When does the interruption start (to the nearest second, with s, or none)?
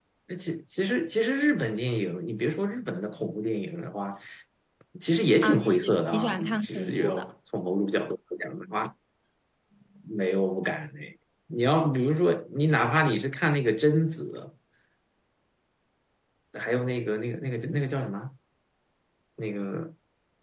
5 s